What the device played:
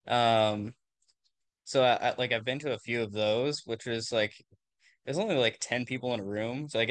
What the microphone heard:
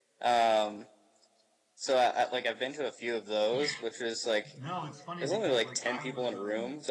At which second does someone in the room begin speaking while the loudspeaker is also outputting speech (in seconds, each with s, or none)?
3.5 s